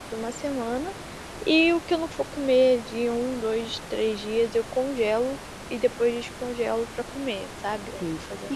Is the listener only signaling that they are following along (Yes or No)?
No